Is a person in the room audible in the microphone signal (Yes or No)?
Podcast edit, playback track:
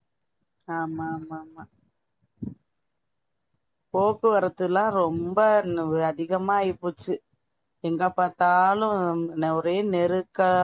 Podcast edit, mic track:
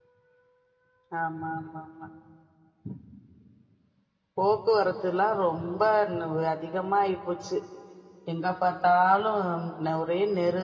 No